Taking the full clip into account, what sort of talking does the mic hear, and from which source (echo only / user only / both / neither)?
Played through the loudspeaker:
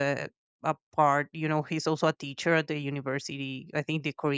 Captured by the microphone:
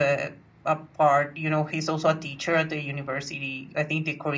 echo only